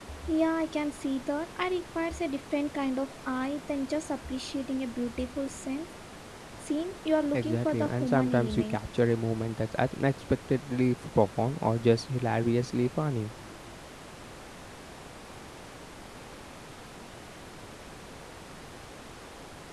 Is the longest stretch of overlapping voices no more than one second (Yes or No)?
No